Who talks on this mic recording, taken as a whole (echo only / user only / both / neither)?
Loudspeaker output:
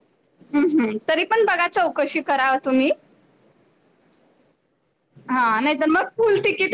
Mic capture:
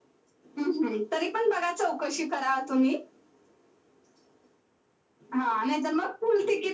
echo only